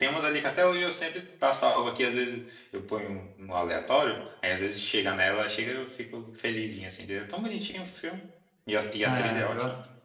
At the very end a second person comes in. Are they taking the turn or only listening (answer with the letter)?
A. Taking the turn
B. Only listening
A